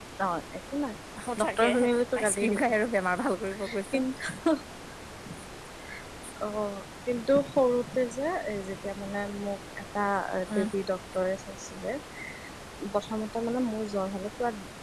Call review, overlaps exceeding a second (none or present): none